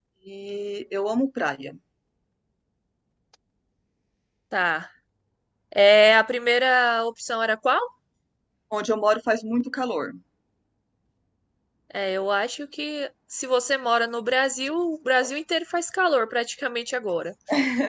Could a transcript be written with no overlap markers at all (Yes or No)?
Yes